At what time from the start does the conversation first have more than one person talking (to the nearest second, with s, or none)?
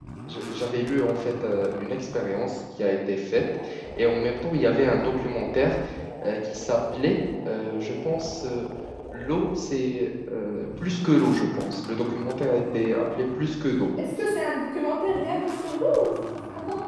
none